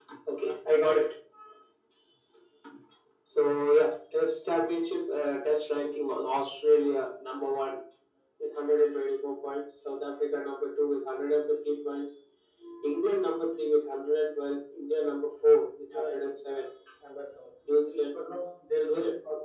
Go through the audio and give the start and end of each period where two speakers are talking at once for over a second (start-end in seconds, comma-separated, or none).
none